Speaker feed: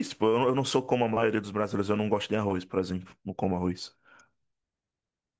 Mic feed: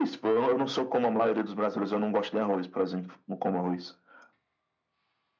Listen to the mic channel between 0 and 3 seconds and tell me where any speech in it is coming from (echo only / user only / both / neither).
echo only